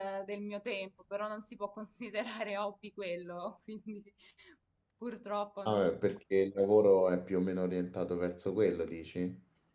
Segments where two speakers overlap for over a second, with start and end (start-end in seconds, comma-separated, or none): none